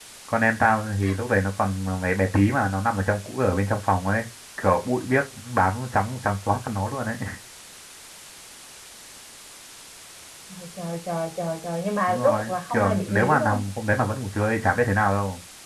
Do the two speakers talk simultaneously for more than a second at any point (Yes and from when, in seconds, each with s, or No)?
Yes, from 12.1 s